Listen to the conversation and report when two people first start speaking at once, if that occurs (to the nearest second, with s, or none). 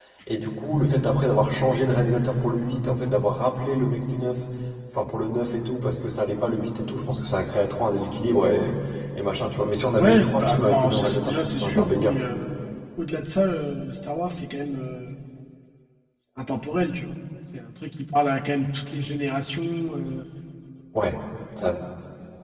10 s